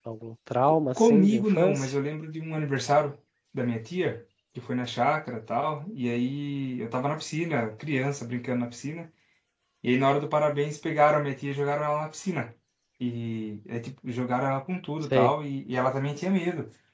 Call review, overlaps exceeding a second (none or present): present